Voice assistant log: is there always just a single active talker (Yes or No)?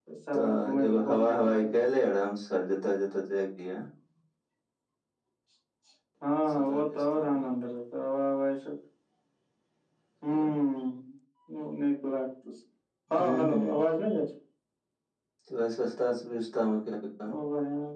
No